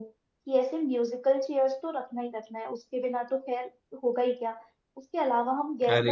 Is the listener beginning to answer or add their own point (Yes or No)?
No